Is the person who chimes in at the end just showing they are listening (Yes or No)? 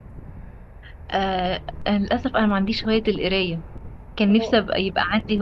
Yes